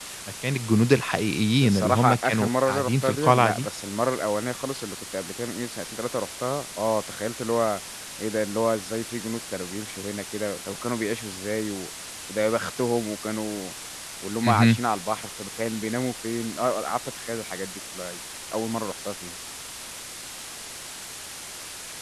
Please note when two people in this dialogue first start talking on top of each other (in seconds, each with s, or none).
1.6 s